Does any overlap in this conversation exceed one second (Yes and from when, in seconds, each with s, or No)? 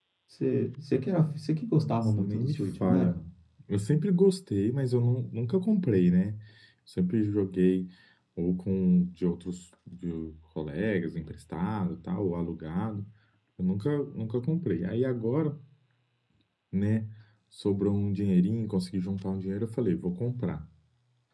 Yes, from 1.8 s